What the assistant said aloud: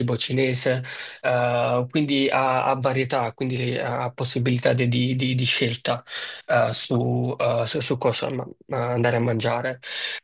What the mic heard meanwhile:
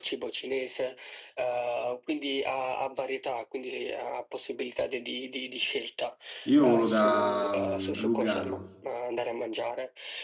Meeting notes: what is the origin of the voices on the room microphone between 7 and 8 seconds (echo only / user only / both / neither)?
both